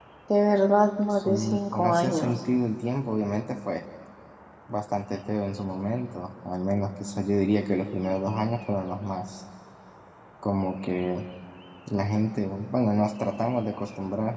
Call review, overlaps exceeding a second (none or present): present